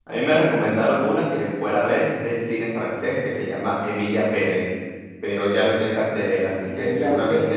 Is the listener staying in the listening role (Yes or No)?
No